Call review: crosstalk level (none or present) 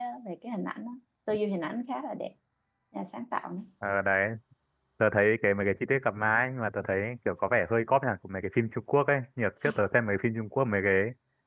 none